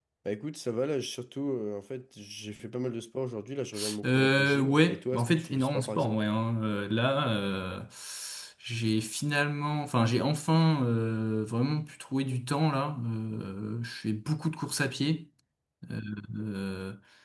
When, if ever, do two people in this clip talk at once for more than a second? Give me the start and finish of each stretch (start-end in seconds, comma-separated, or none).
4.0-6.2